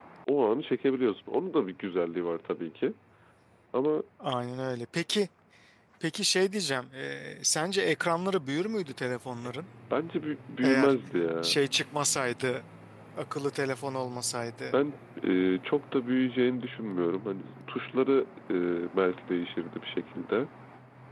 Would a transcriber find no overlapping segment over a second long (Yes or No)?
Yes